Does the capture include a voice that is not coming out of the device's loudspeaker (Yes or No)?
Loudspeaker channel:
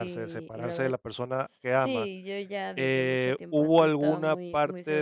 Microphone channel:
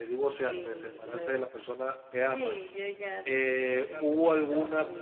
Yes